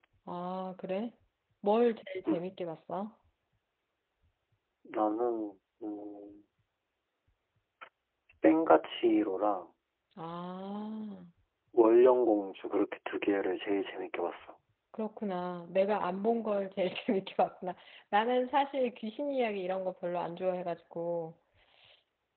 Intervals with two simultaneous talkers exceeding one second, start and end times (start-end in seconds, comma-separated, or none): none